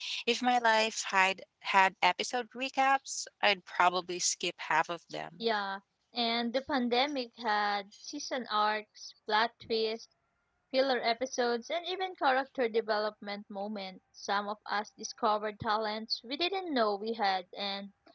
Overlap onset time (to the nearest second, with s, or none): none